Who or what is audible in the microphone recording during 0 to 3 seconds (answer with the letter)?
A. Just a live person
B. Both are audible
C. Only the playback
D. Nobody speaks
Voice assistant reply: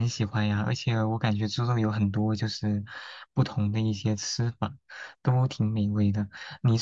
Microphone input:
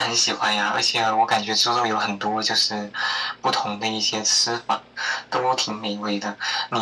C